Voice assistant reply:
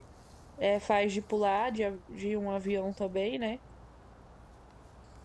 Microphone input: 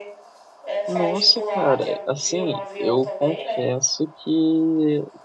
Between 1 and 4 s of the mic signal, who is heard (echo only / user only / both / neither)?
both